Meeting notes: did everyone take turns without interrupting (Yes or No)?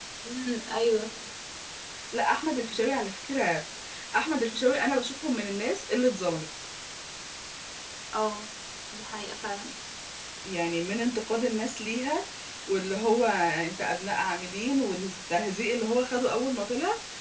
Yes